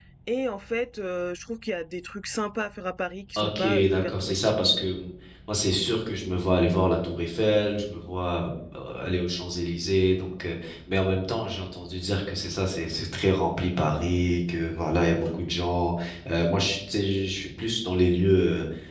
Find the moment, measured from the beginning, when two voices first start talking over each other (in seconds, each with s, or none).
3.4 s